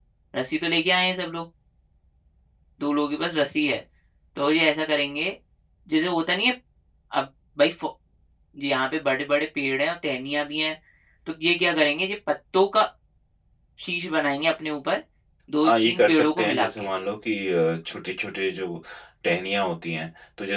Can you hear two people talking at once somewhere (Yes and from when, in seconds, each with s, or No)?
Yes, from 15.6 s